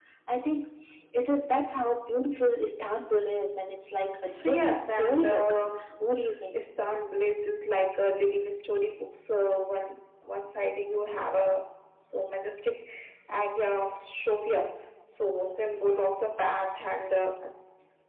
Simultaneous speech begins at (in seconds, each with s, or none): 4.2 s